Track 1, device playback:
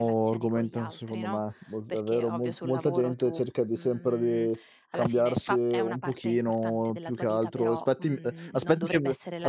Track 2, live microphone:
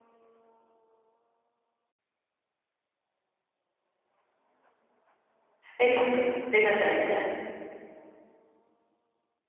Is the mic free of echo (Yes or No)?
Yes